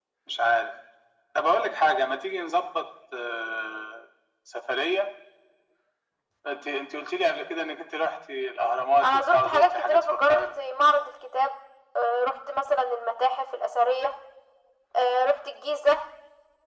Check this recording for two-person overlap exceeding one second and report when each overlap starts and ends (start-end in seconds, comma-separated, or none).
9.0-10.4